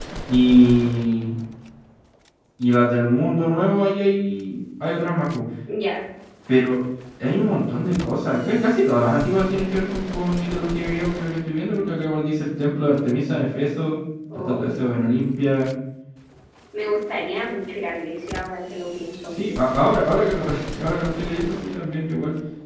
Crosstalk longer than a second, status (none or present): none